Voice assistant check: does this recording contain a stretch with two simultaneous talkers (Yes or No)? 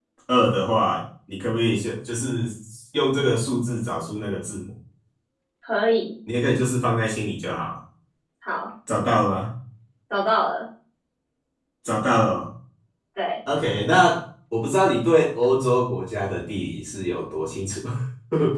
No